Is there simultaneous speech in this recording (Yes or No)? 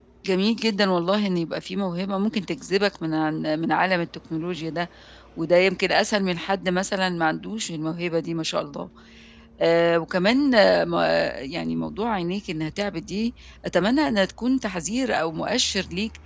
No